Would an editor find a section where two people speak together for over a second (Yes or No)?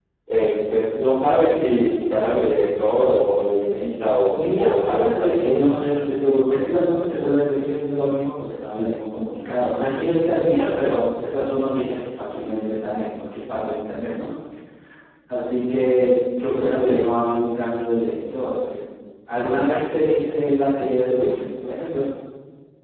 Yes